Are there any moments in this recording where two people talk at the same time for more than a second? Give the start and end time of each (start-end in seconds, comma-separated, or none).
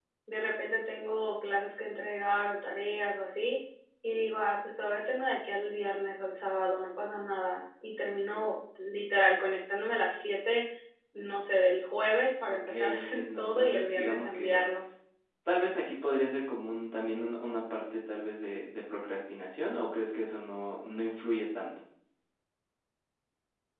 12.5-14.7